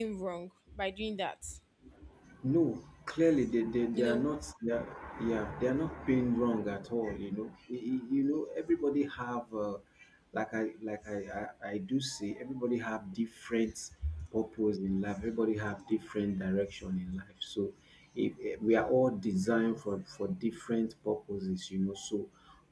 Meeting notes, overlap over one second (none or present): none